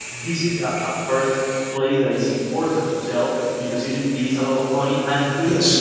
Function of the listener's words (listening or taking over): listening